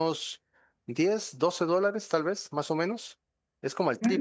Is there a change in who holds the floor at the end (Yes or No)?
Yes